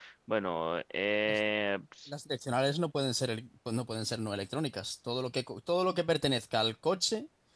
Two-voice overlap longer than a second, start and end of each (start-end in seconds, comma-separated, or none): none